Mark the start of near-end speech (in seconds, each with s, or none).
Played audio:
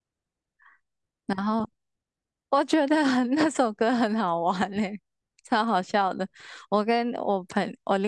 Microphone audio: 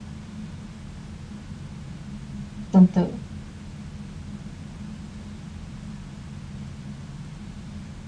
2.7 s